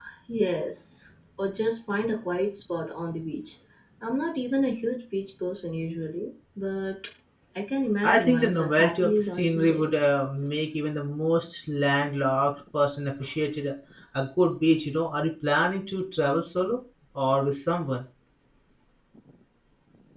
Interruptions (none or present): present